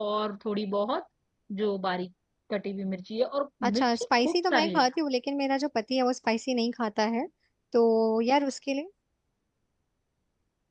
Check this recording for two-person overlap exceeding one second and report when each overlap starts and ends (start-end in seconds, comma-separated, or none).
3.6-4.8